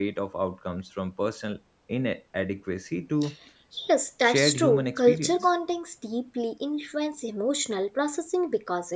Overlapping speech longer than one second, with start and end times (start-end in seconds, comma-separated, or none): 4.2-5.5